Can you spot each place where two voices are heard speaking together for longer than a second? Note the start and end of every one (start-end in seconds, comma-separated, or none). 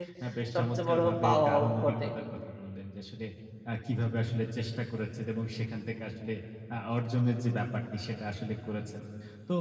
0.5-2.1